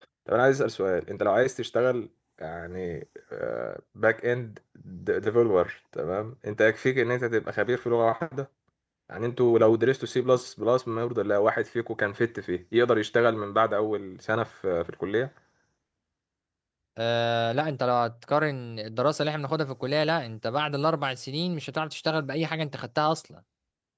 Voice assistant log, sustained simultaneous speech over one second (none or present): none